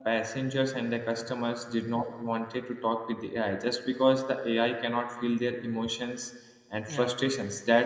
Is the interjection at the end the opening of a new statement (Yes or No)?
No